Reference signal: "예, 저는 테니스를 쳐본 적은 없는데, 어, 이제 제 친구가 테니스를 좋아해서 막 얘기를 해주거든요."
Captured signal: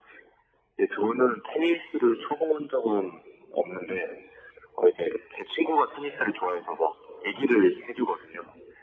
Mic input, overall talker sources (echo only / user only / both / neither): echo only